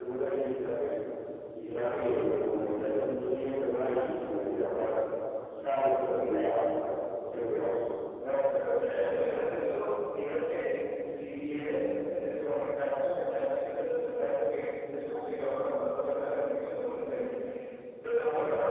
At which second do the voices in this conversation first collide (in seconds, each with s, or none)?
none